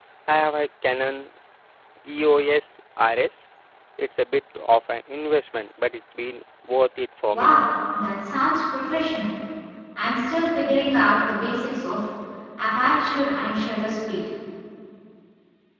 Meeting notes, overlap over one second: none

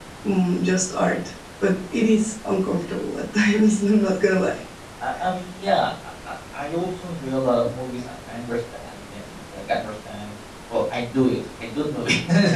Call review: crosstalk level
none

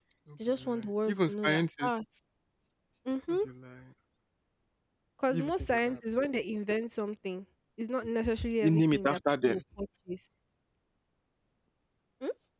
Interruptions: present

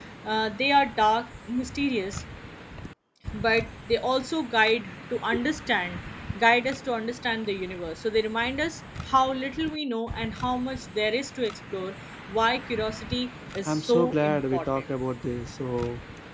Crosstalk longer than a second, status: present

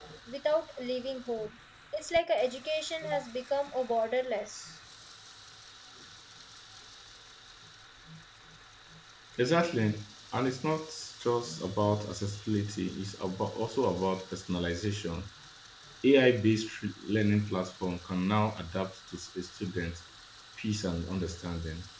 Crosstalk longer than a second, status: none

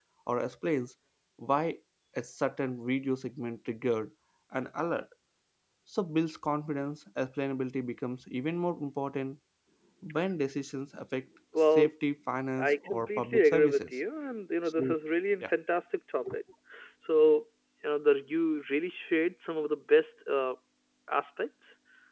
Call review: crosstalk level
present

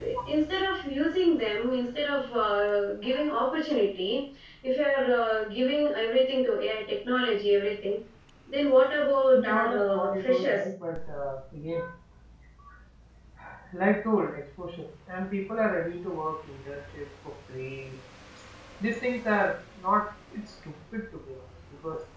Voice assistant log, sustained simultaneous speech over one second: present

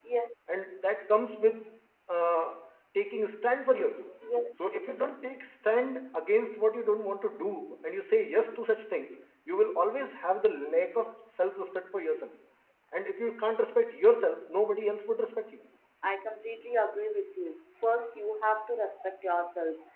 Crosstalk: none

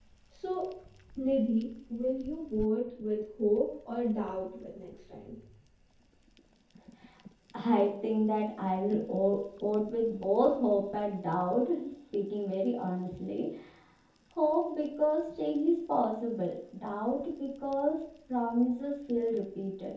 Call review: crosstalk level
none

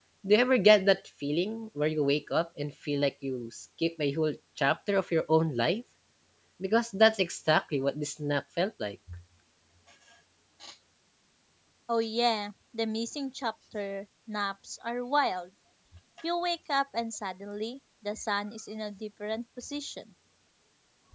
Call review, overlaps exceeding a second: none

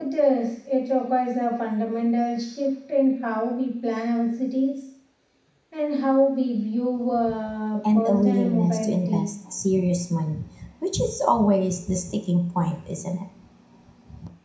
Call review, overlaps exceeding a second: present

